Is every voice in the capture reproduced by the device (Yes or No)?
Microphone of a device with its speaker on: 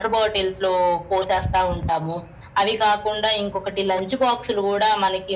Yes